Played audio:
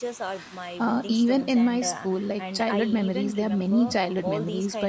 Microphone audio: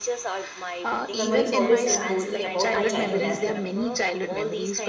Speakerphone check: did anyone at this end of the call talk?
Yes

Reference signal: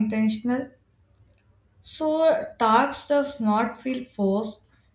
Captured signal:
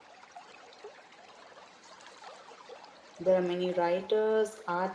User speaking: Yes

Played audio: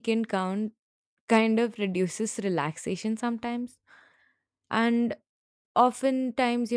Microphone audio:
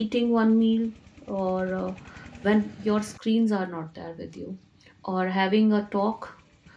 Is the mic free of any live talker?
No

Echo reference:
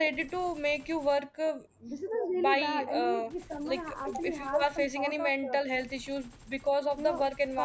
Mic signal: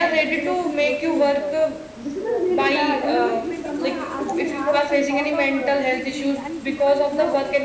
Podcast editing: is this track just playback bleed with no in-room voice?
No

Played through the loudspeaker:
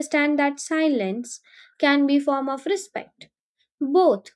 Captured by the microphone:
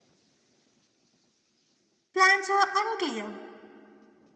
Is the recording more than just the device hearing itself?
Yes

